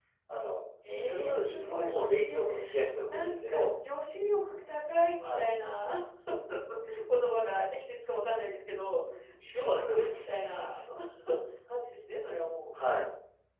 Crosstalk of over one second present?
Yes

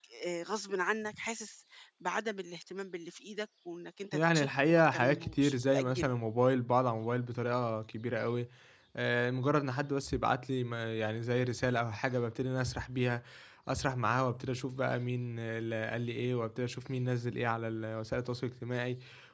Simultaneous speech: Yes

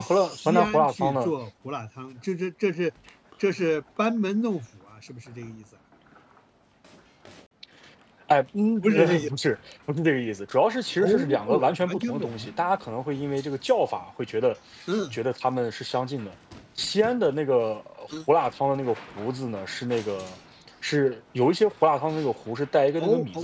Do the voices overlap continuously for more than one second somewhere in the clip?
Yes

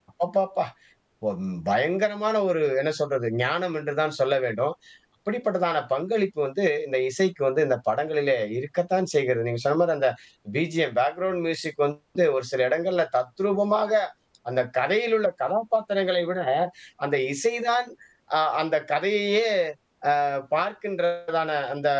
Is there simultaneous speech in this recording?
No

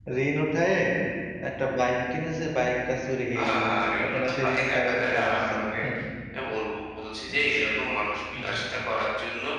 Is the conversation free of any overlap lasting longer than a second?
No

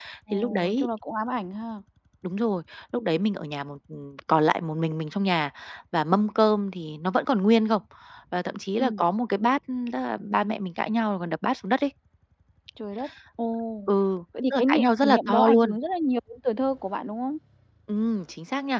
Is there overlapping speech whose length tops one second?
Yes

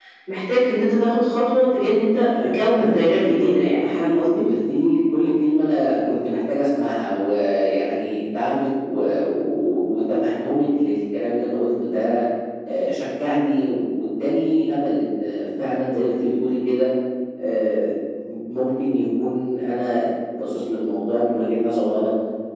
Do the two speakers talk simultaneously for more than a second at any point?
Yes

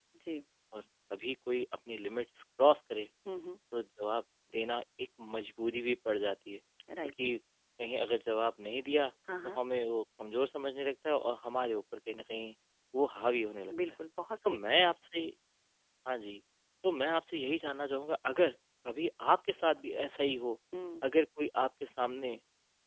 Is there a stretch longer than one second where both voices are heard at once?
No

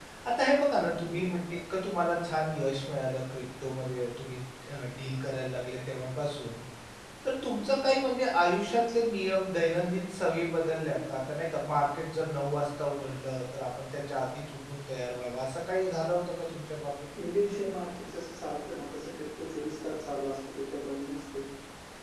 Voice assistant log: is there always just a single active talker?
Yes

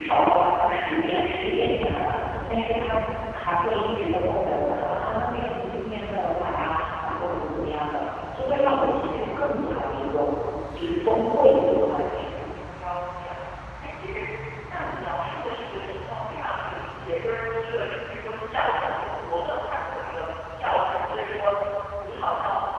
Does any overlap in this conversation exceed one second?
No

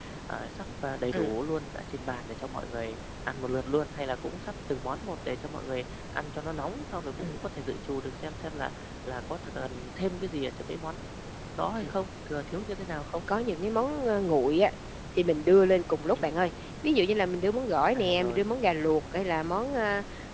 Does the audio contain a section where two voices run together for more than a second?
No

